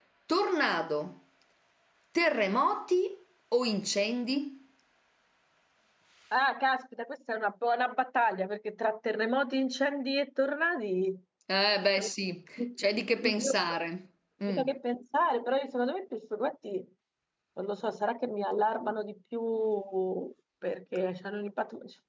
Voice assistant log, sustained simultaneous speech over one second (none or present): none